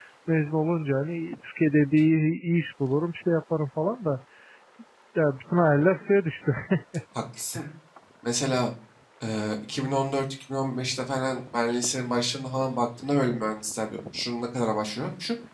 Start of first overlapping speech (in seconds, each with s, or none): none